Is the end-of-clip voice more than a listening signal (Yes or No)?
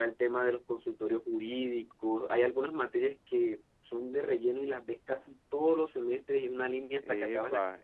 Yes